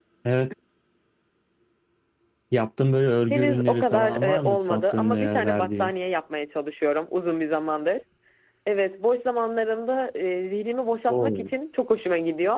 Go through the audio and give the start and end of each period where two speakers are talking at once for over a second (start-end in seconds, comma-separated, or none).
3.3-5.9